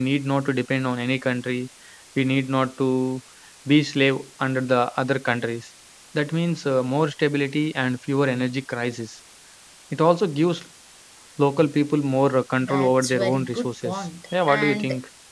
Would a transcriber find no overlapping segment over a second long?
No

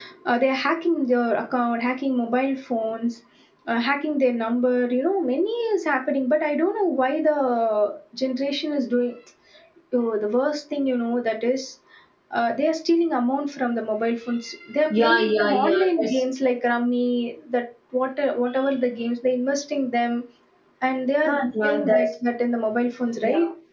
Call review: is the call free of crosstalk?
No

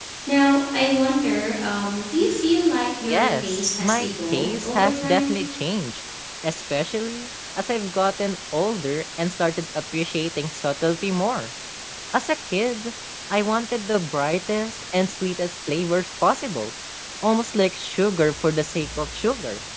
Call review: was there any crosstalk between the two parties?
Yes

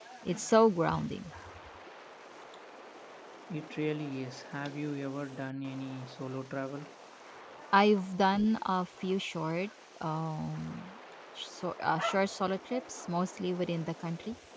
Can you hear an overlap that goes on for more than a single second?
No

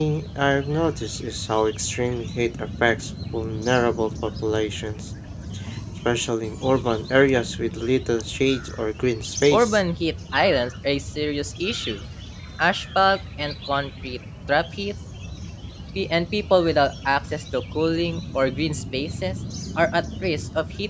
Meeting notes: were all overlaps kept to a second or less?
Yes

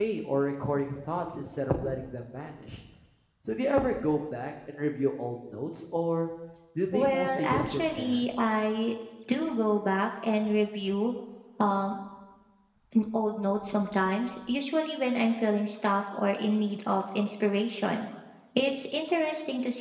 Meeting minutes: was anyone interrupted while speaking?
Yes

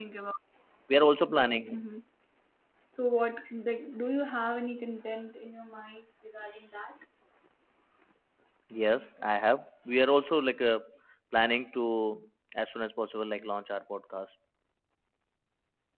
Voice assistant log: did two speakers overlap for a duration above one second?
No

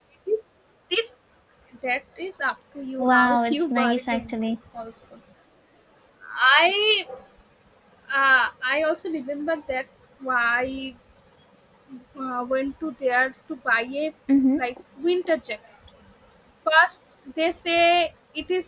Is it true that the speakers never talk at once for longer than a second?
No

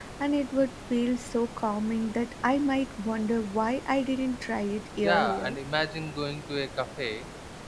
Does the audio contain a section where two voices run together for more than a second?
No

